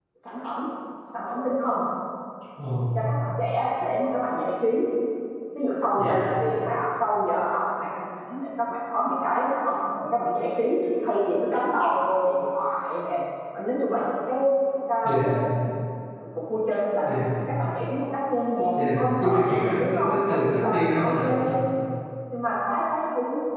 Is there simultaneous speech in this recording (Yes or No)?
Yes